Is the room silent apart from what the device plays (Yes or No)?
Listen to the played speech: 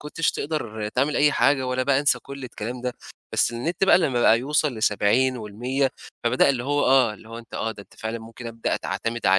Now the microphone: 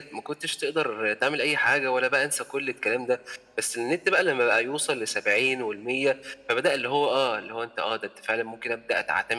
Yes